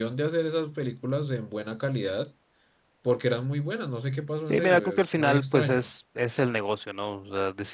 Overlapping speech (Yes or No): Yes